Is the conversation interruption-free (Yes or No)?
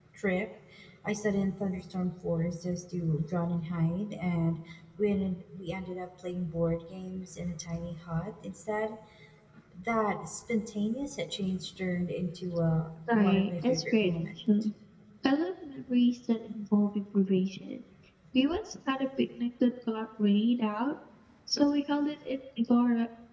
No